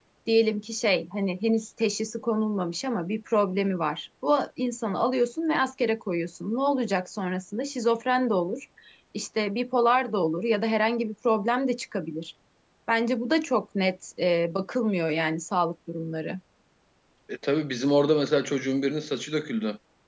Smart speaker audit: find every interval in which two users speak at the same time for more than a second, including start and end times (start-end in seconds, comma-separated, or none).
none